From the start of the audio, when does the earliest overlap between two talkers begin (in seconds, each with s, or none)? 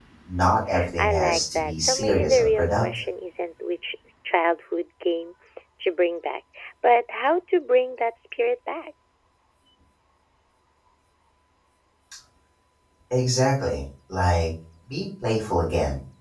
1.0 s